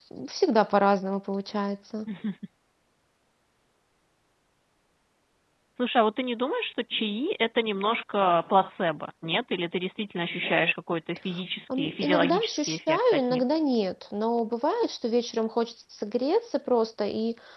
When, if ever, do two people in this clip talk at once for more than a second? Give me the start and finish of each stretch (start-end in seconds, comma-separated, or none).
11.8-13.4